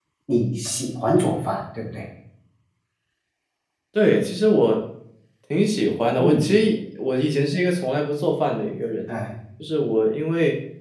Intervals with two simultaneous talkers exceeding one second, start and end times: none

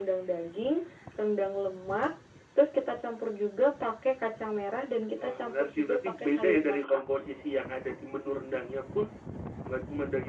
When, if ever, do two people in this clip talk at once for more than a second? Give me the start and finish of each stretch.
5.2-7.0

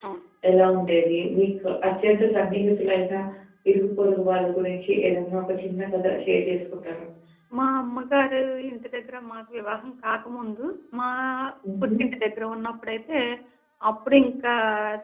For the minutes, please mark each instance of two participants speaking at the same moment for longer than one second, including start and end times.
none

